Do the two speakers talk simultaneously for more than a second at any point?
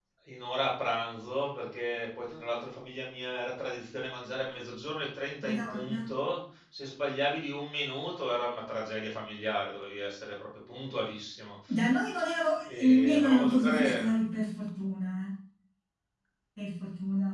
Yes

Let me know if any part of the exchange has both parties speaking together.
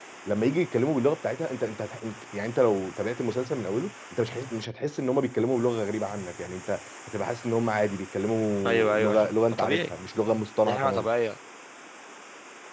Yes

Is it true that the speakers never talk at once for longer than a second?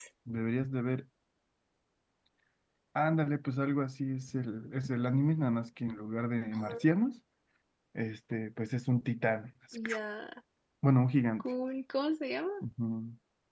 Yes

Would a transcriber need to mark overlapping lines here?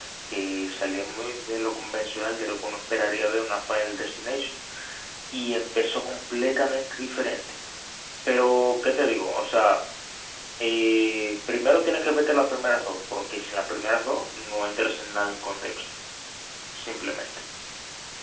No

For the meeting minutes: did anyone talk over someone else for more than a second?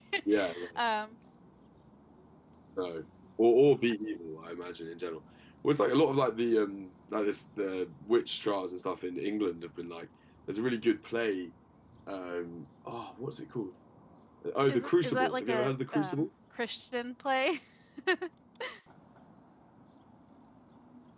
Yes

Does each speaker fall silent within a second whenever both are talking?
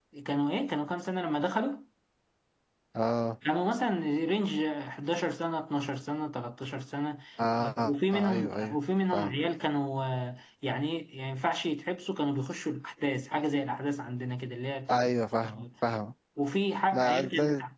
No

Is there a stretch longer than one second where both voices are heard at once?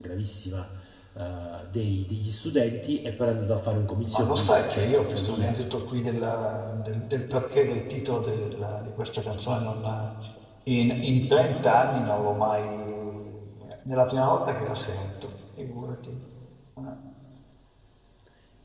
Yes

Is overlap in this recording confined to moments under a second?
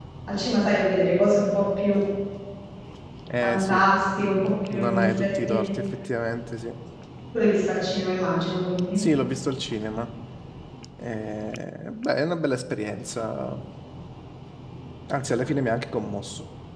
No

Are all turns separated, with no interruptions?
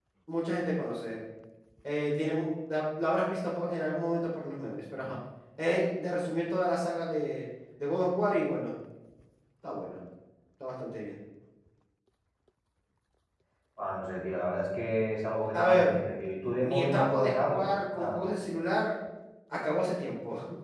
No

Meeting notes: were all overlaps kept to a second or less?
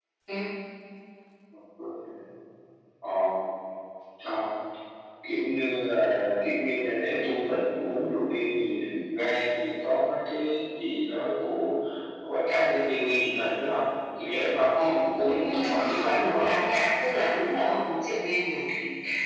No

